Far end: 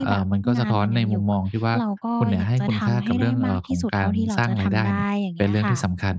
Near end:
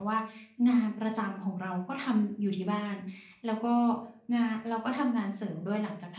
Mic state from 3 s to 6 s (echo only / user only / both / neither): user only